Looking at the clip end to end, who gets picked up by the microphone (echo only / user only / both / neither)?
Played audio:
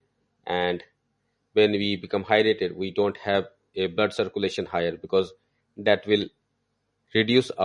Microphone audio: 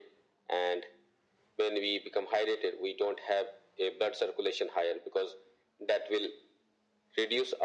echo only